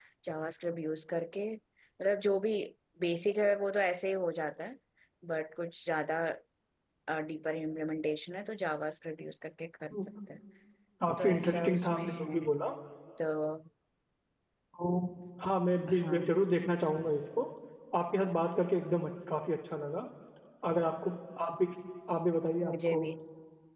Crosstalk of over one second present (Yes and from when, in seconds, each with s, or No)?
Yes, from 11.2 s